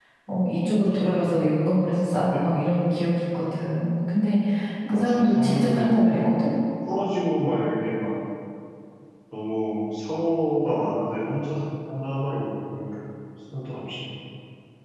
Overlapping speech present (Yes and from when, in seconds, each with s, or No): Yes, from 4.9 s